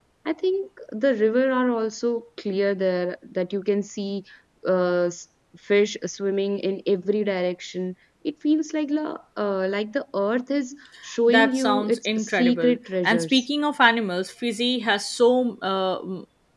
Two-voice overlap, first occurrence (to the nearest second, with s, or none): 11 s